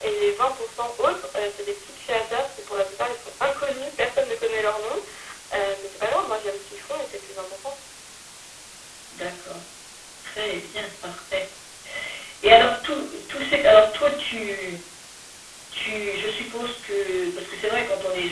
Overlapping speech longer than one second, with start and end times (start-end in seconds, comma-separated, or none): none